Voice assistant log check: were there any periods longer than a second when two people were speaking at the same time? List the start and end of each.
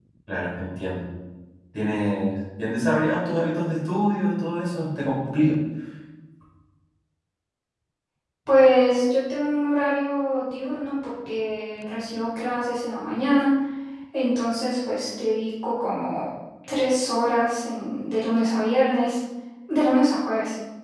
none

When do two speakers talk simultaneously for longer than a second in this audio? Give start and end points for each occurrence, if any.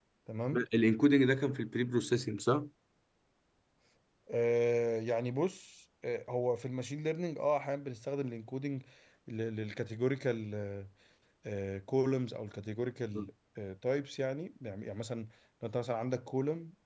none

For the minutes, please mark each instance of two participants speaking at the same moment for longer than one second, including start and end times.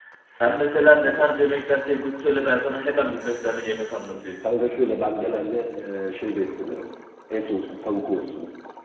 none

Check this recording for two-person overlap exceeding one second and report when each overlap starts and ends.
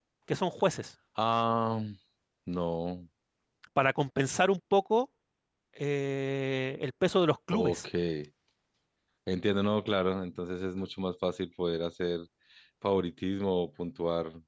none

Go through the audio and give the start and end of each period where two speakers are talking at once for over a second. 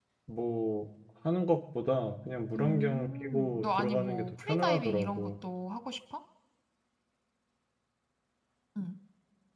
2.6-5.3

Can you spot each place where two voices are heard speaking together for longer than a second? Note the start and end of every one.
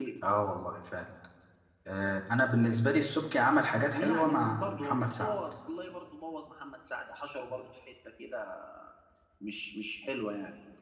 3.7-5.4

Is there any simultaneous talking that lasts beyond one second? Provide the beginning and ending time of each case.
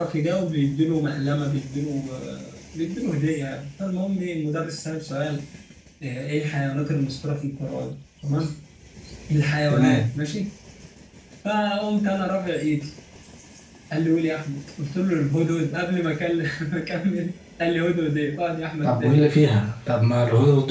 none

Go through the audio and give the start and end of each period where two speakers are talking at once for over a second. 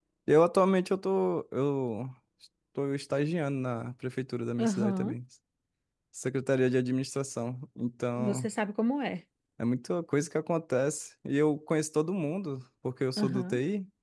none

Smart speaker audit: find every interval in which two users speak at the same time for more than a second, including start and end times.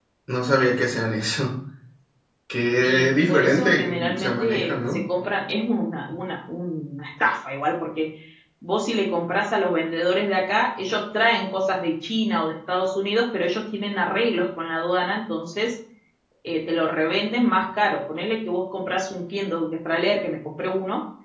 2.8-5.0

